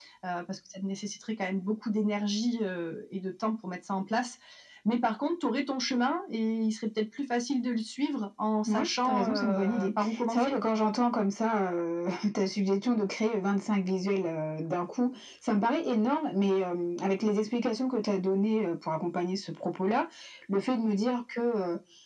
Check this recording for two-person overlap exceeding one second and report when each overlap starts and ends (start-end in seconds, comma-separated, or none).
8.7-10.6